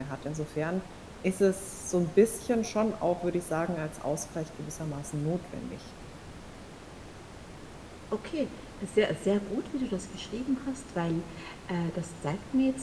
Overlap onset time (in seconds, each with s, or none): none